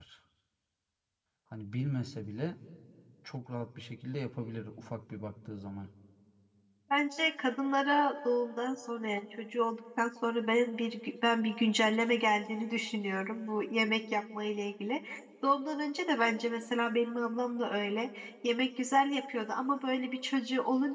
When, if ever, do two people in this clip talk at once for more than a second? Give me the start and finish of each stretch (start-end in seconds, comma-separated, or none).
none